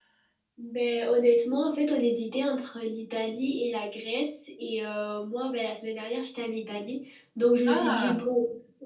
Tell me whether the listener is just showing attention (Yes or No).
Yes